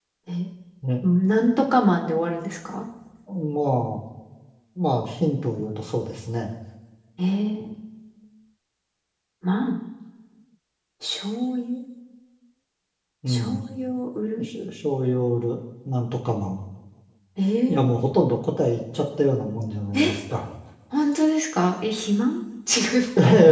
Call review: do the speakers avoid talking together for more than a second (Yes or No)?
Yes